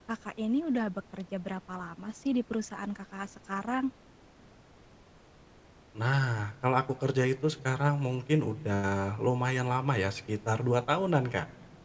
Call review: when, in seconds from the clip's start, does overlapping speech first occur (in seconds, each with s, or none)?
none